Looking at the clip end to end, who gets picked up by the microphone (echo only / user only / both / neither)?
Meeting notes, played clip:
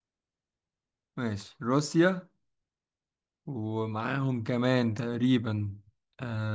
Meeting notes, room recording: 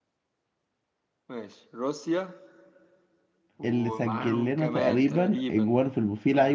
both